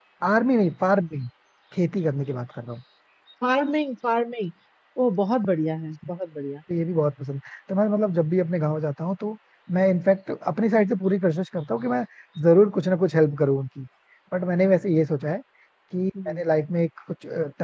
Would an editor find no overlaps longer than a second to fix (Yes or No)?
Yes